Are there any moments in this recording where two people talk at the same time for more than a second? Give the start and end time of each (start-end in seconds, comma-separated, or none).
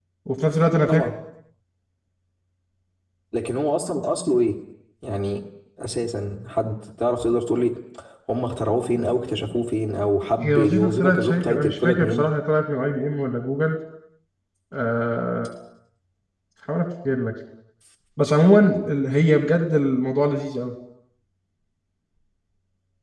10.4-12.3